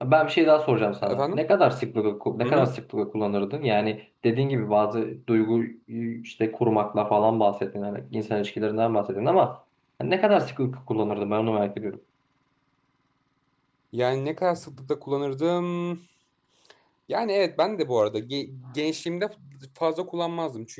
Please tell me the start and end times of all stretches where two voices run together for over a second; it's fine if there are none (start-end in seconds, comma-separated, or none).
none